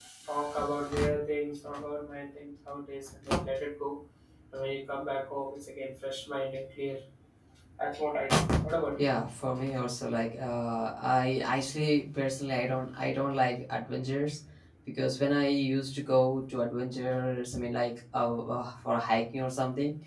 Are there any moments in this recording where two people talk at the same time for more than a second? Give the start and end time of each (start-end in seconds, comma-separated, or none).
none